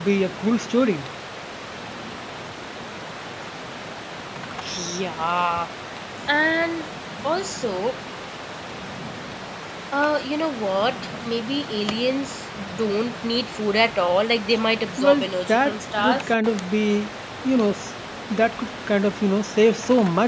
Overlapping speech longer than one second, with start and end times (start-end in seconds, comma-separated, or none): 15.0-16.2